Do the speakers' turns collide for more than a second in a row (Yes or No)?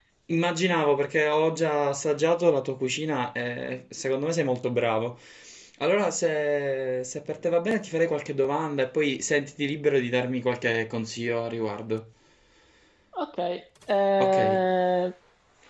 No